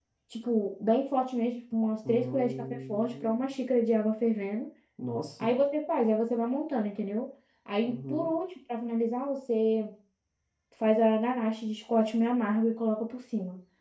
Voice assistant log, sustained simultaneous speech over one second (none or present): present